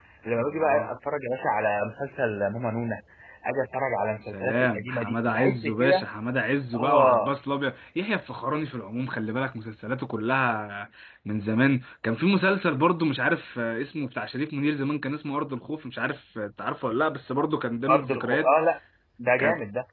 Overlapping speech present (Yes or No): Yes